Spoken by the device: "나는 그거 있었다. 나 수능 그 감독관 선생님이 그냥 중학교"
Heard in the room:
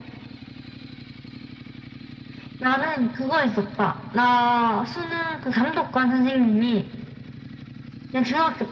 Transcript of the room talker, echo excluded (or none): none